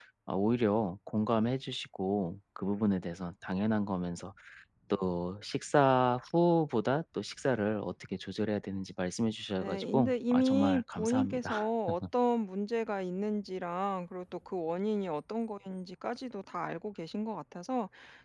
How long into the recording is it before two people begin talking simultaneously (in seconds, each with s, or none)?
9.6 s